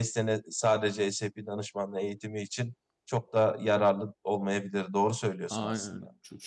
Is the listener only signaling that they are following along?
No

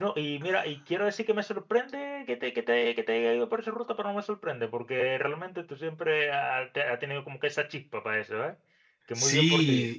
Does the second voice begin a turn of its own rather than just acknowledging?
Yes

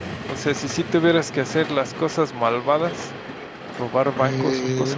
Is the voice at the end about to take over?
Yes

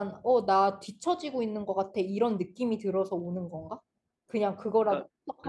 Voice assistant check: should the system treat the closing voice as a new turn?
Yes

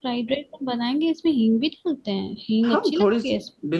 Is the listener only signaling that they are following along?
No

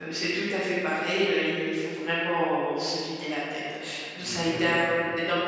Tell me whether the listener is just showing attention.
Yes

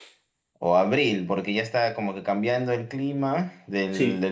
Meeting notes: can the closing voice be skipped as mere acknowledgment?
Yes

